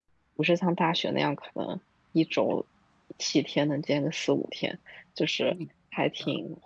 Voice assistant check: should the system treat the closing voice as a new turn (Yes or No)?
No